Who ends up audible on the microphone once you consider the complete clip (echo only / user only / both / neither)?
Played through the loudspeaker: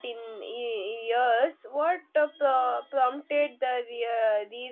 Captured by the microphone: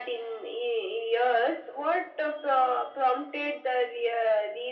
echo only